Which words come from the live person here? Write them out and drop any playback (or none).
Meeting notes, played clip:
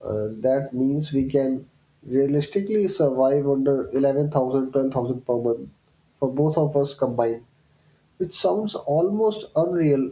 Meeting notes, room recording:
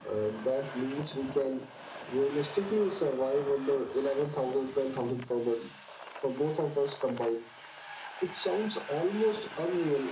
none